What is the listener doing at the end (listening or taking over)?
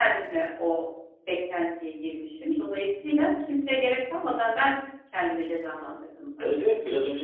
taking over